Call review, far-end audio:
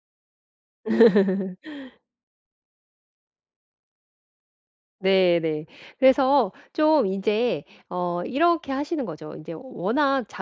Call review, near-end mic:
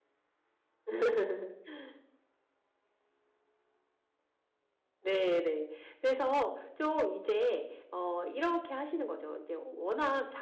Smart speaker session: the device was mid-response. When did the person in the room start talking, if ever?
none

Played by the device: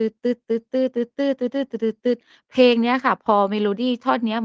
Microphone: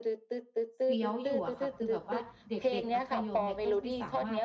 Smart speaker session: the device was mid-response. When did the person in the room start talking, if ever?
1 s

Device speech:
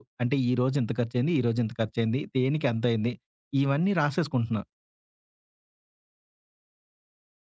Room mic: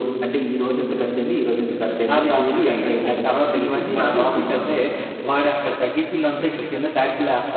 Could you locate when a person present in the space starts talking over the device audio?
2 s

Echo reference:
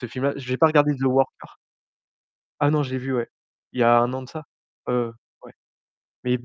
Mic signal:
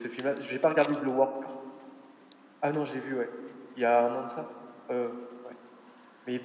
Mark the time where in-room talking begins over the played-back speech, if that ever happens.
none

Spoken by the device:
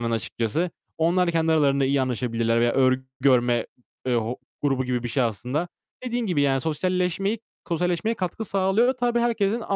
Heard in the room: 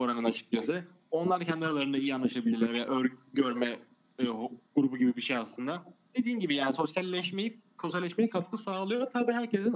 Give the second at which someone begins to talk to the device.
none

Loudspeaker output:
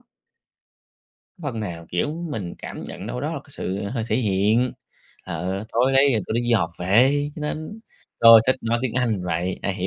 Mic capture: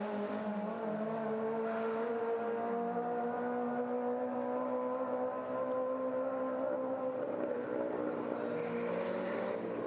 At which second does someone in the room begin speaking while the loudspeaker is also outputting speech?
none

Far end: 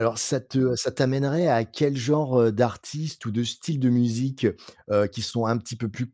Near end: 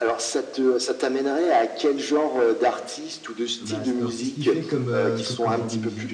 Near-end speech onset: 3 s

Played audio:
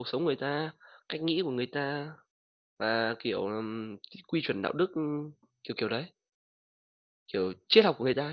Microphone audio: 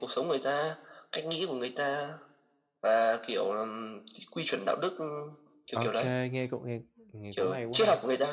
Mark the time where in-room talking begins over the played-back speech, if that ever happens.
6 s

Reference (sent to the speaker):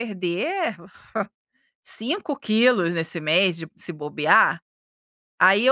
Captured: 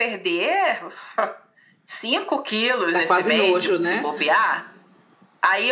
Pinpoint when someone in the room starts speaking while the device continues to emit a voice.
3 s

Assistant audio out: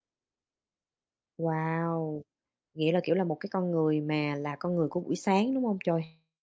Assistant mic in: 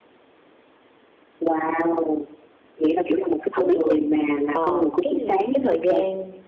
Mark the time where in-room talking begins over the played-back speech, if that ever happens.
4 s

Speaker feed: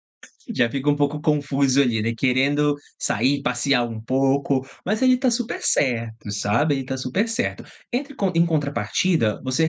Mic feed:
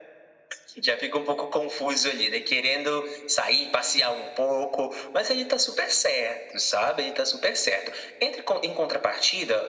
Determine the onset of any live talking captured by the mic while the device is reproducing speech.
none

